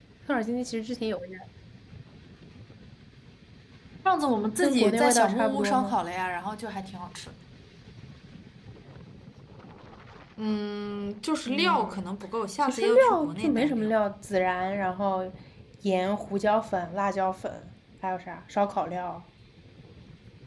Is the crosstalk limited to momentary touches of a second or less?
No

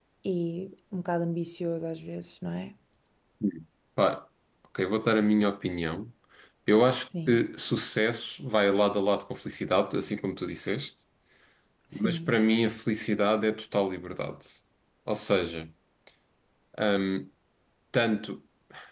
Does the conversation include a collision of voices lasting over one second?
No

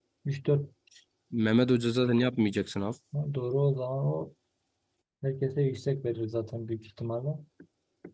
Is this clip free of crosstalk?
Yes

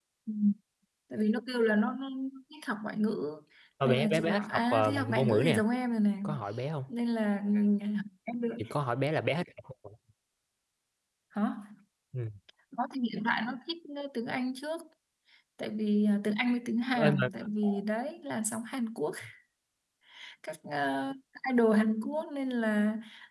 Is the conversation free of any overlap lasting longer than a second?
No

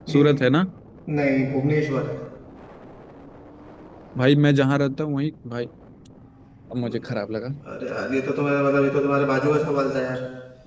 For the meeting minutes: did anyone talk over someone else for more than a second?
No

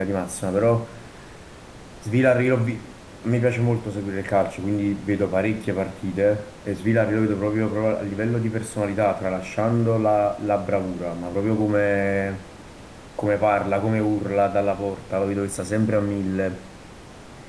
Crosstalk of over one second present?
No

